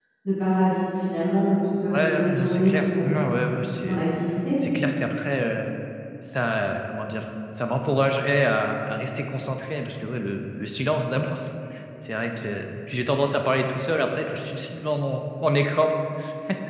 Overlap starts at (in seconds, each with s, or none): 1.9 s